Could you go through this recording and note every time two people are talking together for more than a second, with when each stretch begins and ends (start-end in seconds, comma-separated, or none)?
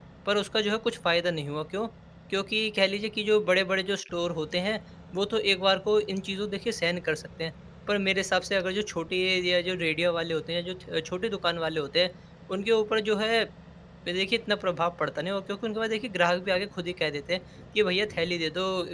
none